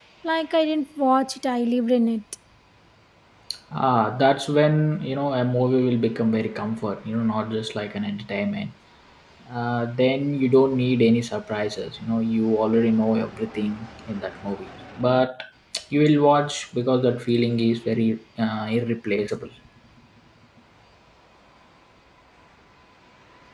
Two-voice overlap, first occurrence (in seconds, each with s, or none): none